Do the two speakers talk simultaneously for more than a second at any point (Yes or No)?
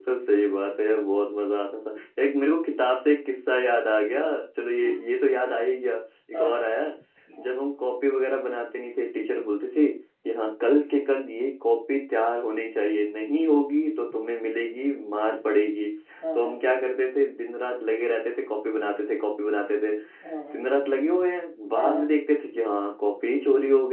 No